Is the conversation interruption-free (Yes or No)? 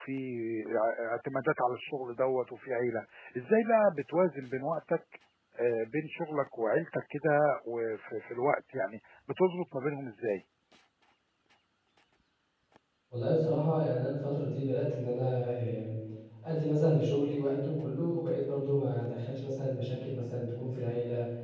Yes